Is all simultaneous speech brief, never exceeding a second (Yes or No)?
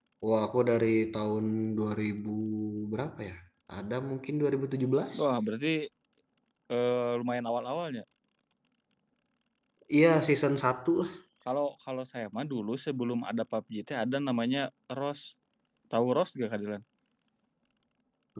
Yes